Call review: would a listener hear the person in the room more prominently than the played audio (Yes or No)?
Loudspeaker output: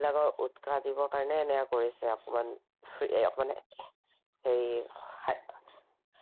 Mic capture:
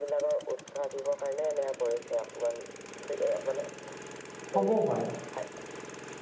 Yes